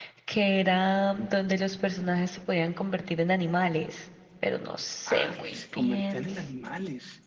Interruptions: present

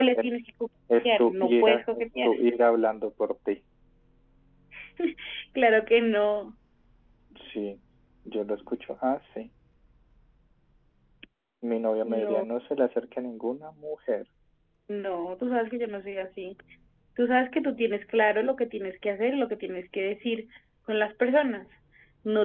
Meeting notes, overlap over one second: present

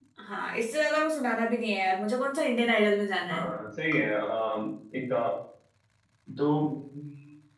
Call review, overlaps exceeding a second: none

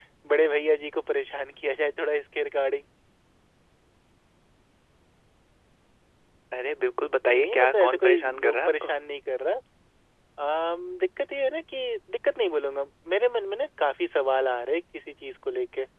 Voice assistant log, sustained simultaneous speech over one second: present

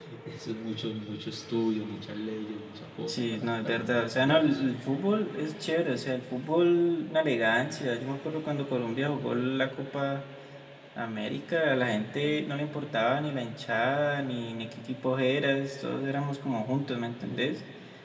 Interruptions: present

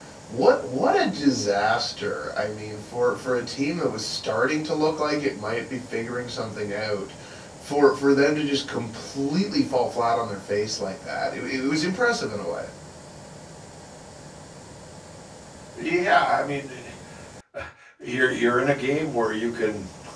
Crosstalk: none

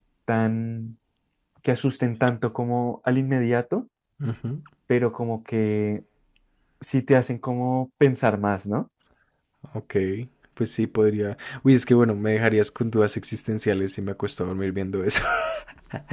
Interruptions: none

